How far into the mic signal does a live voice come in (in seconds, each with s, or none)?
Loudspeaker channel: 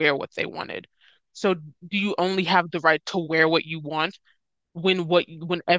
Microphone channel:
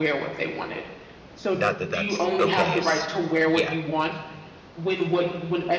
1.5 s